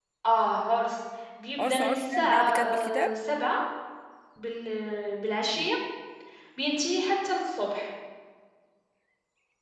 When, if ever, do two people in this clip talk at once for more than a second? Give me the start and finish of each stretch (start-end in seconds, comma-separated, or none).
1.6-3.1